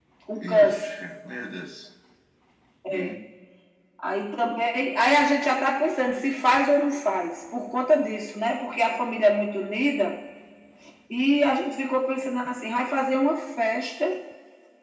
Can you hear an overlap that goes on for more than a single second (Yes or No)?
No